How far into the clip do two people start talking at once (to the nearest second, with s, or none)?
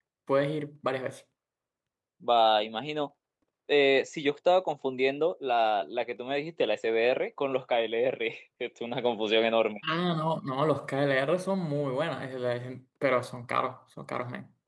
none